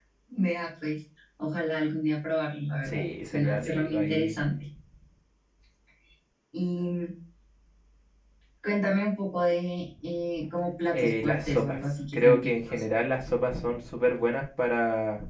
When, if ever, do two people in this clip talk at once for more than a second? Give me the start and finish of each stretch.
2.8-4.4, 10.9-12.8

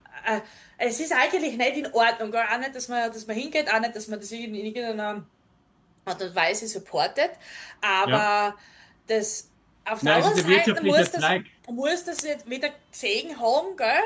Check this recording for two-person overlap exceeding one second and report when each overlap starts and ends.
10.0-11.3

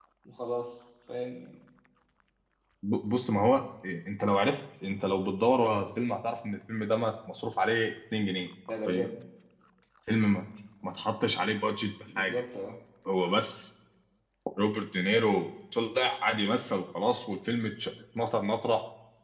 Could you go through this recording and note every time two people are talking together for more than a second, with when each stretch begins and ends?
none

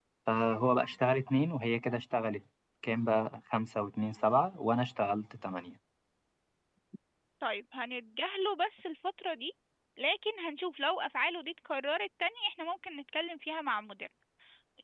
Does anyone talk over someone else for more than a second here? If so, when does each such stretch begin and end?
none

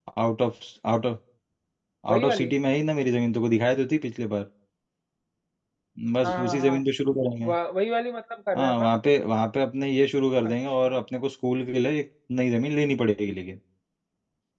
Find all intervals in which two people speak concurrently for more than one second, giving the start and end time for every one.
none

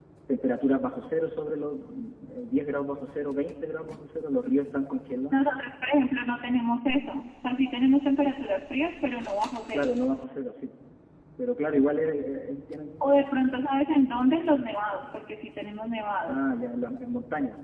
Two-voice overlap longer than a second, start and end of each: none

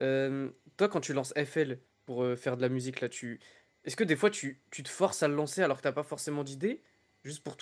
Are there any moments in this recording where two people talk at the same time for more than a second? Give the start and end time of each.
none

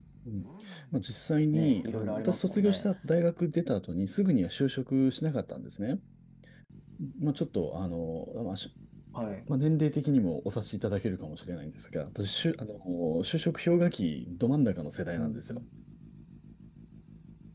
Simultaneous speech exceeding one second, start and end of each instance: 1.5-2.9

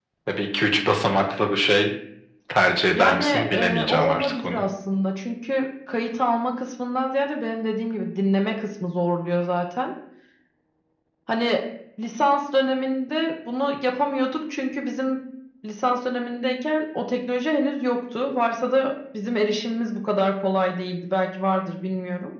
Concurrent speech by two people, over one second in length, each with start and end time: 3.0-4.6

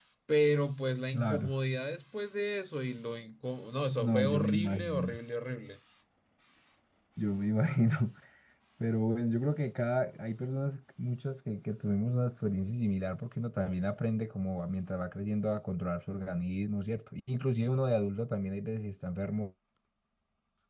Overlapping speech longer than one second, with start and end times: 3.9-5.2

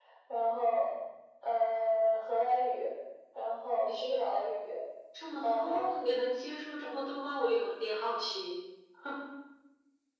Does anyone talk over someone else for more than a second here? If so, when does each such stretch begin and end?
none

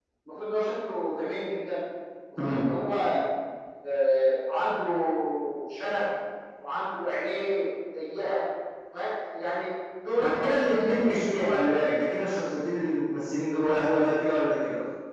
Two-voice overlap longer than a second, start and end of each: 10.2-11.6

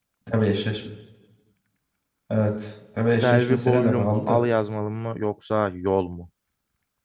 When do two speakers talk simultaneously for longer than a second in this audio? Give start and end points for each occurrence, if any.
3.1-4.4

